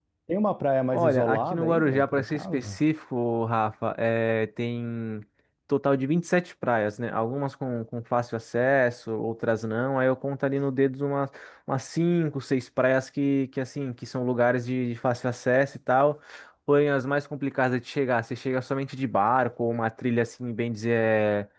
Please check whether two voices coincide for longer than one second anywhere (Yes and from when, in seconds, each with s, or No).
Yes, from 0.9 s